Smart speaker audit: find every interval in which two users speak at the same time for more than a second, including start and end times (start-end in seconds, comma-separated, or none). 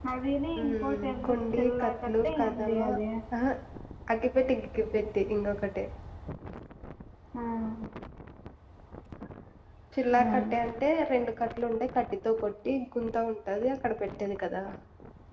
0.6-2.8